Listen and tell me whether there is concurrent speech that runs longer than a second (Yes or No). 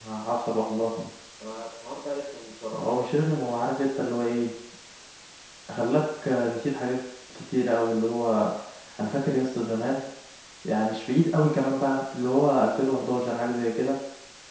No